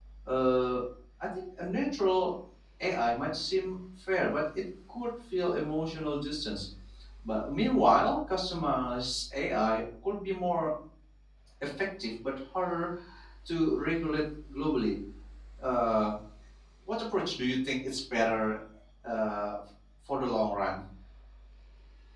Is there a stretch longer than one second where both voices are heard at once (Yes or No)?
No